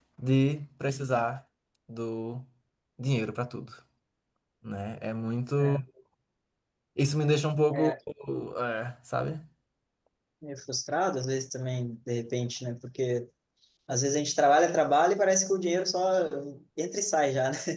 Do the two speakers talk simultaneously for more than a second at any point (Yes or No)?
No